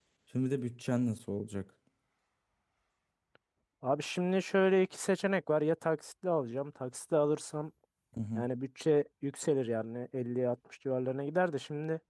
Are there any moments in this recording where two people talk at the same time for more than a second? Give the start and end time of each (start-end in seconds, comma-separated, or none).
none